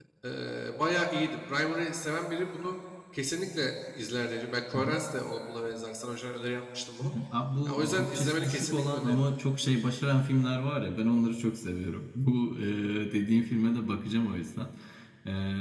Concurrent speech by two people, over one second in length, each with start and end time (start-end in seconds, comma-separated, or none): 7.7-9.2